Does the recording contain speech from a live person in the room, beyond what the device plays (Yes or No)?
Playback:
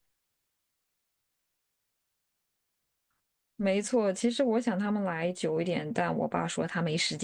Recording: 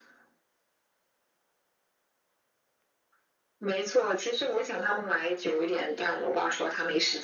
No